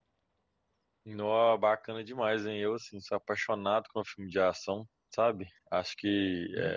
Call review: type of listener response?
listening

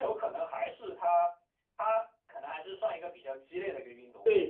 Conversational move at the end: taking over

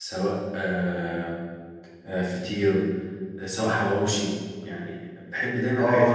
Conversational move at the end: taking over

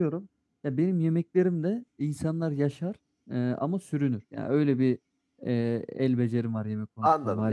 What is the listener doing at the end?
taking over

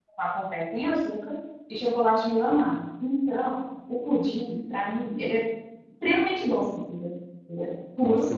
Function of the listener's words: taking over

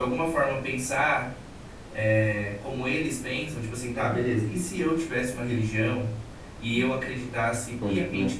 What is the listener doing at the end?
listening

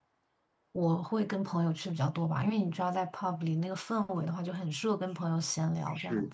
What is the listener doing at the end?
taking over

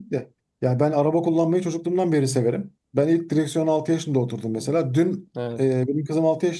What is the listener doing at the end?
listening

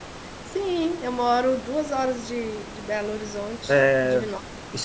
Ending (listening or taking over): taking over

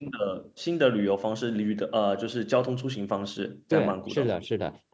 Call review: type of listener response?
taking over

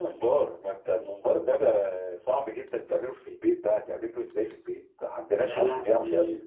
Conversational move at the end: taking over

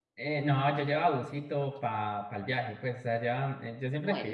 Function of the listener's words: listening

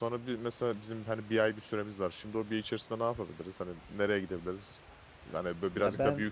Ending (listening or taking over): listening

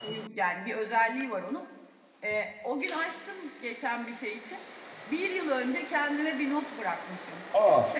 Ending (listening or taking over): listening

